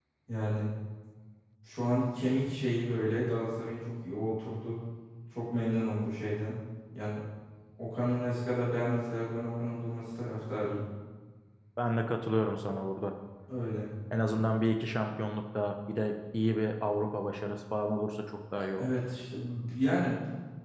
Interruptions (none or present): none